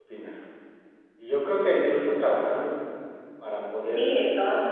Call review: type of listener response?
taking over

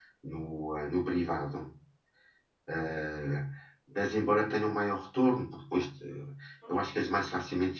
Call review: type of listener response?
listening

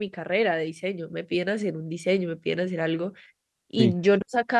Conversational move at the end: listening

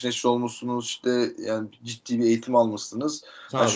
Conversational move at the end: listening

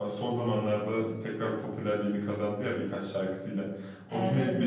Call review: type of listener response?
listening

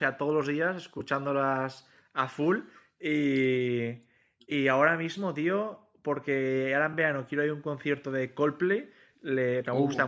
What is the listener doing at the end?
listening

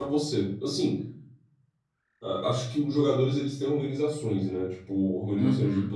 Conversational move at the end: listening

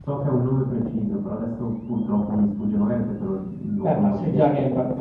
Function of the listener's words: taking over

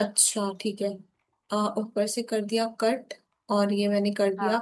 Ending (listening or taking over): listening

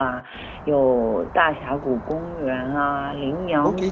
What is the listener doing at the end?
taking over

